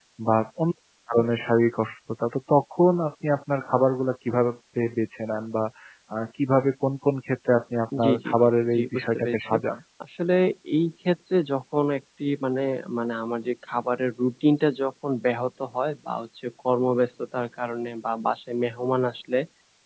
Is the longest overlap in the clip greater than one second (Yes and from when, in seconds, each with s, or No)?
Yes, from 7.9 s